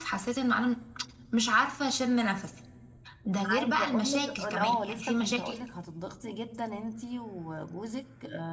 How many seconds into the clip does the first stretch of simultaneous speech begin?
3.6 s

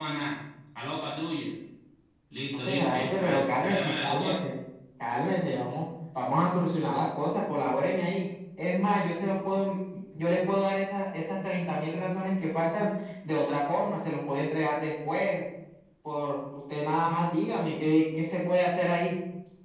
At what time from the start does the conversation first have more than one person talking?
2.6 s

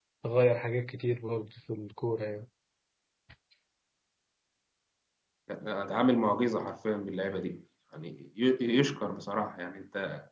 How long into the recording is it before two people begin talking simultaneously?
none

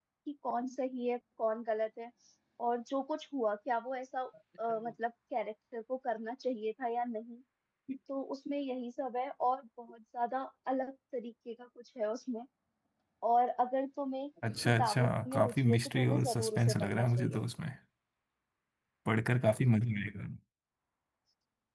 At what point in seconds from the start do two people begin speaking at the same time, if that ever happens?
14.4 s

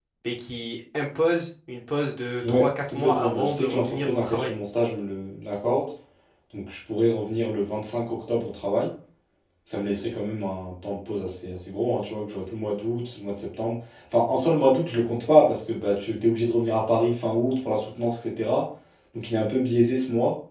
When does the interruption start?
2.4 s

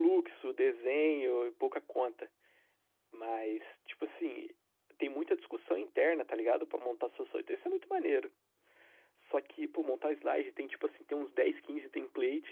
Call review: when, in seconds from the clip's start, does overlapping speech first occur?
none

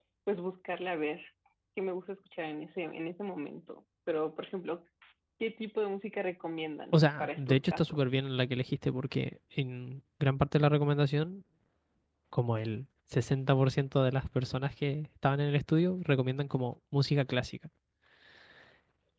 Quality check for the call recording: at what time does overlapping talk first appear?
6.9 s

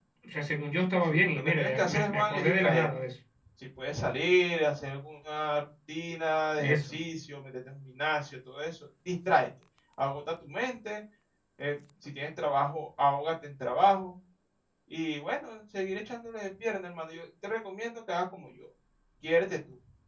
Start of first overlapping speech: 1.0 s

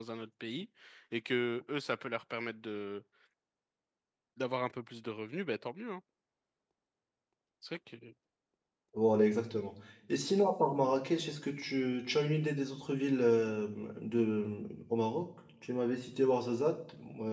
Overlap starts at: none

